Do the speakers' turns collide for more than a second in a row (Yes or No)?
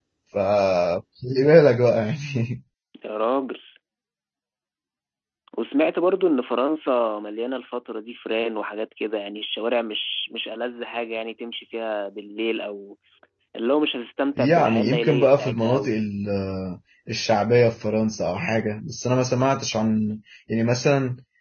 Yes